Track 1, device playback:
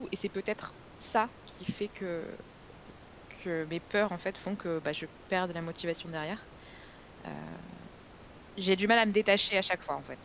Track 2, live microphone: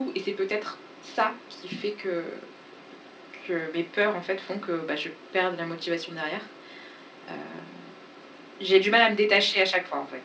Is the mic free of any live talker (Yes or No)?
Yes